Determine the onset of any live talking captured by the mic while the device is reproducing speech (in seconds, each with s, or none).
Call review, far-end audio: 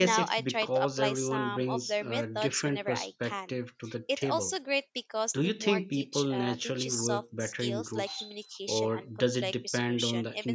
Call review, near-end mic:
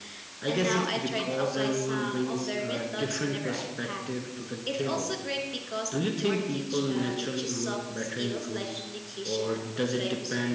none